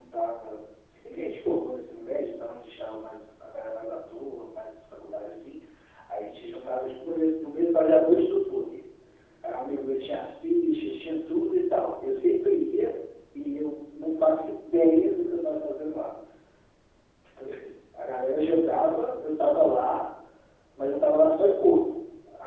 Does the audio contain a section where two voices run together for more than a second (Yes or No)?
No